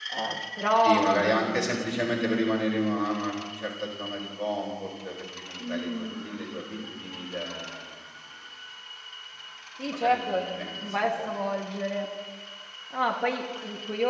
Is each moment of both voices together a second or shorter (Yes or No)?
No